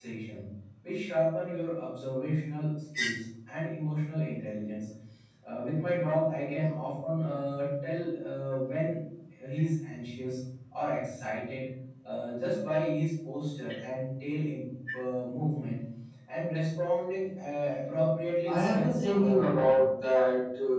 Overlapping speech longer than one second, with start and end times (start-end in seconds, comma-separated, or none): 18.5-19.8